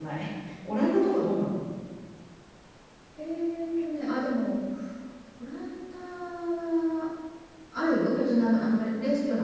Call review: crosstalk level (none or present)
none